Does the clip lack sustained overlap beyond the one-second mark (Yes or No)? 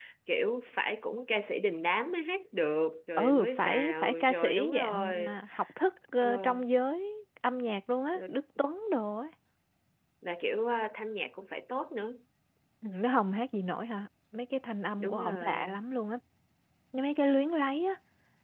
No